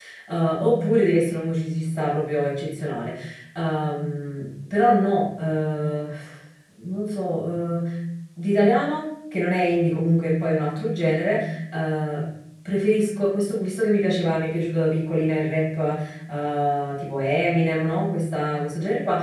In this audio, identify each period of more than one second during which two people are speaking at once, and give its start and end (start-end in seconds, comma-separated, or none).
none